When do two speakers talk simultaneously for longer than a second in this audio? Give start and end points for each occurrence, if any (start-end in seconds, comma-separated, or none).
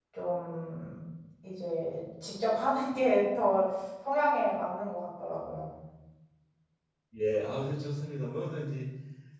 none